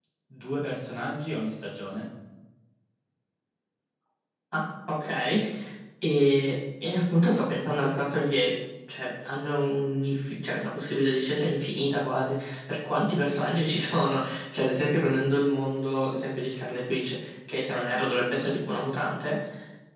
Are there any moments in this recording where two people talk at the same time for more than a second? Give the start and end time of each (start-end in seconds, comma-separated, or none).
none